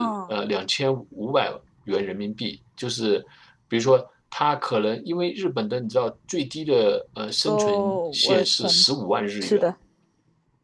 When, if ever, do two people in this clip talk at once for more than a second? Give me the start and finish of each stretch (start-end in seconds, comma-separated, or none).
7.5-8.8